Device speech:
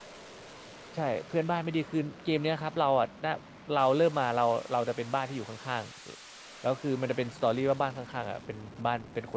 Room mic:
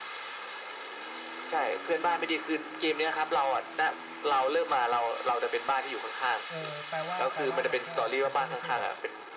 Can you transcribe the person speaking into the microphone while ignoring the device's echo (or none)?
เออแปลว่าแปลว่ามันก็มันก็ไม่ใช่แบบ